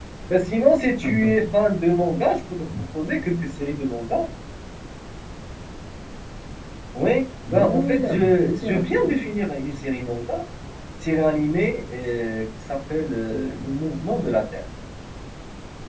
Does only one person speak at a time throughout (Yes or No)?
No